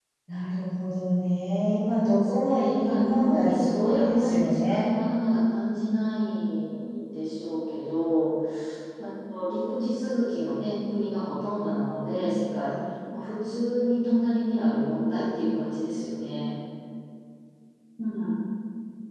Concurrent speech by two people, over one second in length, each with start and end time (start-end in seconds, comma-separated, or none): 2.1-4.9